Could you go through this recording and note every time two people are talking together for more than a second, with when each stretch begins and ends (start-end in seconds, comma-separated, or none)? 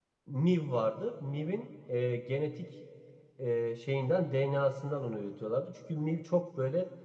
none